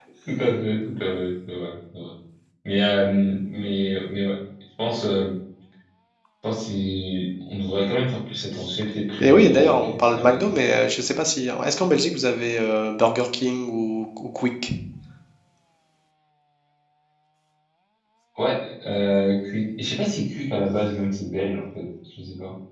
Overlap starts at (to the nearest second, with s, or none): 9 s